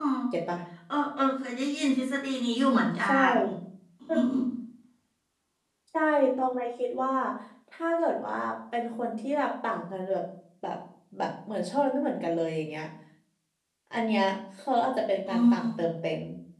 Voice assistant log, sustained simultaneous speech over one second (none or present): none